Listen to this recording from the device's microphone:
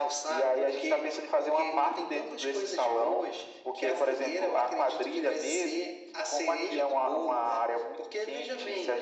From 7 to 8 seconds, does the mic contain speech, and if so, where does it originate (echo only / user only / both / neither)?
echo only